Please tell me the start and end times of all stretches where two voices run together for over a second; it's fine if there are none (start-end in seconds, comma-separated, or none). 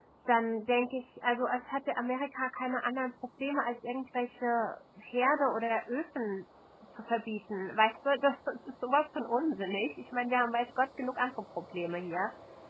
none